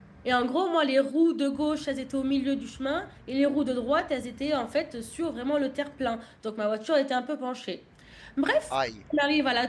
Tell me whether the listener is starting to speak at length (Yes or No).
No